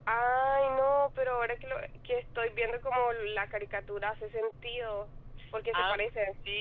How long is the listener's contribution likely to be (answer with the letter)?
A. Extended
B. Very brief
A